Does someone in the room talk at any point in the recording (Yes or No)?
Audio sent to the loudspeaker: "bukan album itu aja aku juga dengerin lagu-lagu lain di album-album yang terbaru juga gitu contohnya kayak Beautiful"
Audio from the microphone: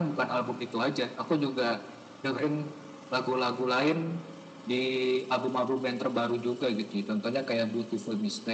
No